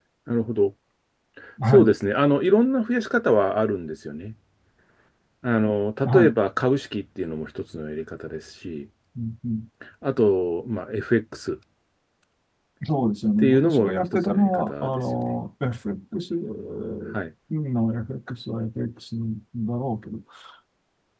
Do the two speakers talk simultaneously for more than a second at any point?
Yes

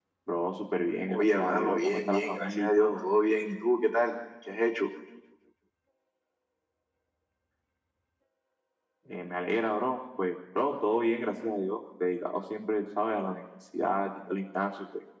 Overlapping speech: Yes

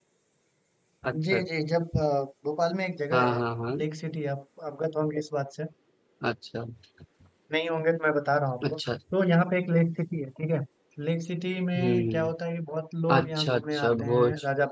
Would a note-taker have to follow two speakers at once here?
Yes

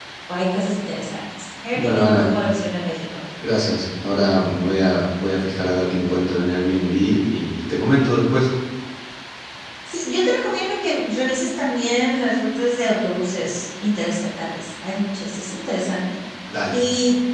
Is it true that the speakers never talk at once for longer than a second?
Yes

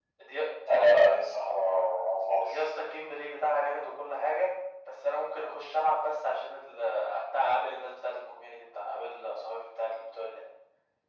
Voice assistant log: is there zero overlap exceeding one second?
Yes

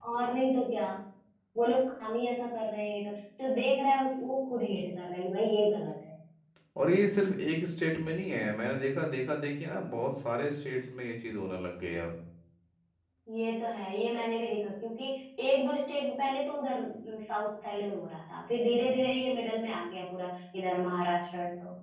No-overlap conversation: Yes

